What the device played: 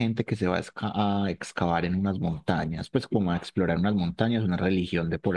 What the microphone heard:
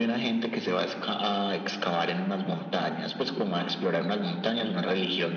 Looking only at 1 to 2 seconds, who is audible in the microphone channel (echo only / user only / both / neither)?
echo only